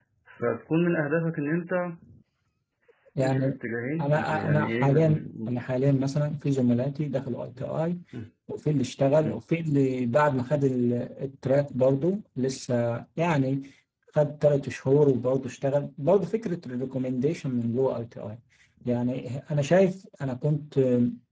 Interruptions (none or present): present